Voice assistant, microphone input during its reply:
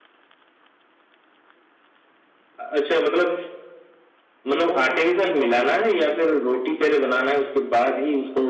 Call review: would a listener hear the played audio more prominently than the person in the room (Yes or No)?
Yes